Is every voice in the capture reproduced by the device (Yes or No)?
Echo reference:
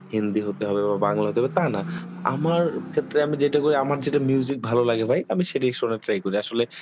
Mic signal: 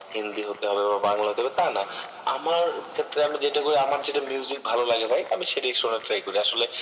Yes